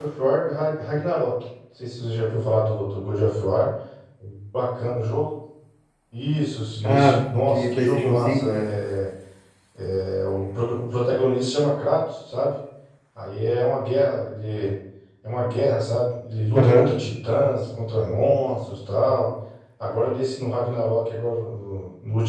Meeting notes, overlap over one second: present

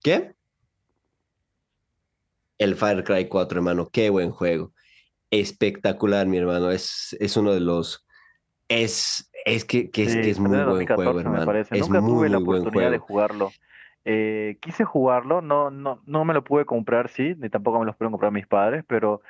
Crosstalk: present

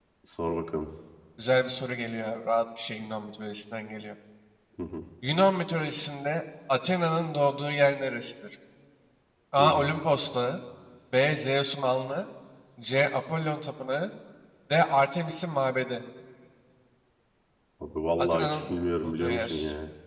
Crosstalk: present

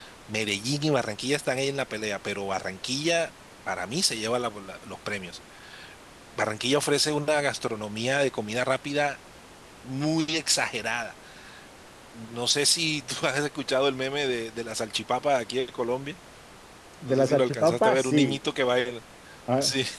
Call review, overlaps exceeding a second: present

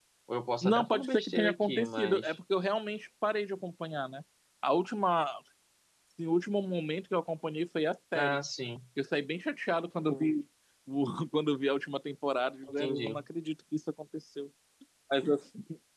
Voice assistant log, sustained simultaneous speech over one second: present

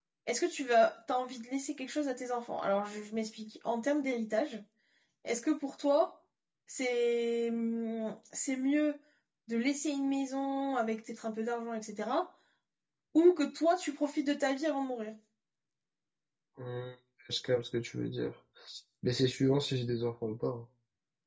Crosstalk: none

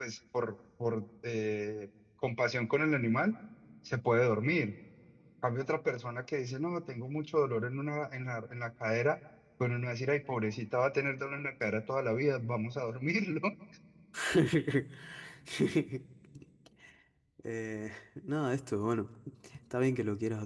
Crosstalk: none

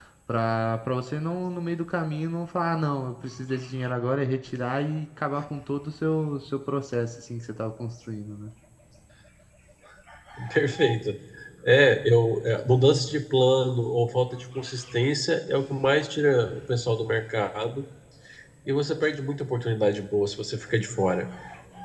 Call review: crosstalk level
none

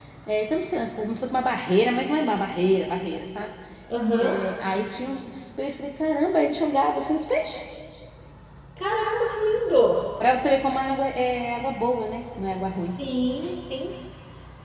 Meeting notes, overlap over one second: none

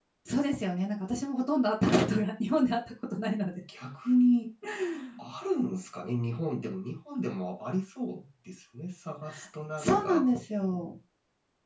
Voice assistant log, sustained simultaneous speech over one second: none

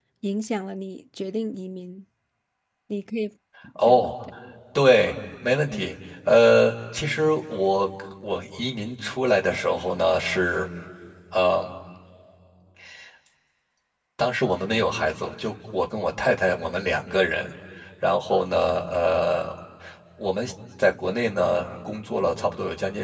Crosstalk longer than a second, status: none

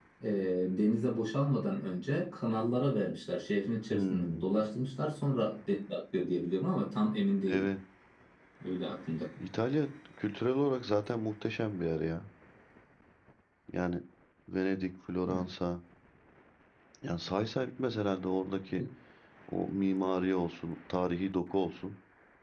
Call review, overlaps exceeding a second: none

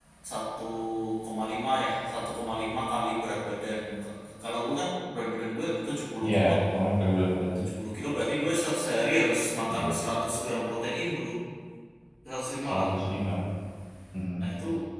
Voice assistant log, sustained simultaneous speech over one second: none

